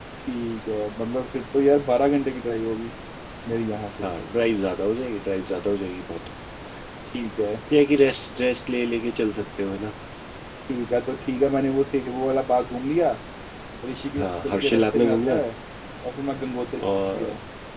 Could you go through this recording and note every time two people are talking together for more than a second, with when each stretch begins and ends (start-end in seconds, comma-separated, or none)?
14.2-15.4